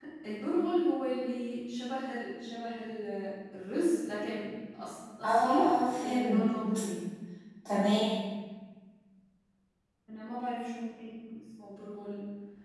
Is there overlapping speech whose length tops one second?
Yes, from 5.2 s

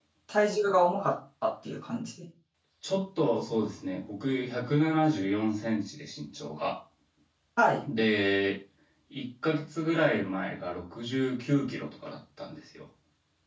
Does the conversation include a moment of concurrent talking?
No

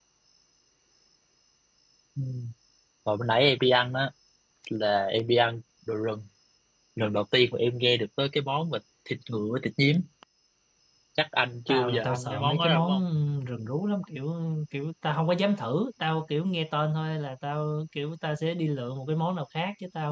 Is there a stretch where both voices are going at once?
Yes, from 11.7 s

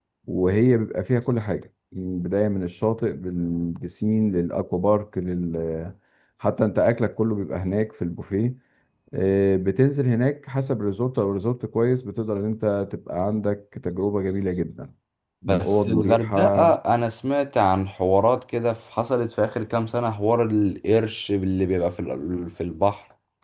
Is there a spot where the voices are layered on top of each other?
Yes, from 15.4 s

